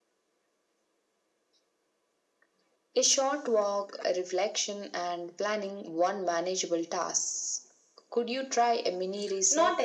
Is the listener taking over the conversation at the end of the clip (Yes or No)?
Yes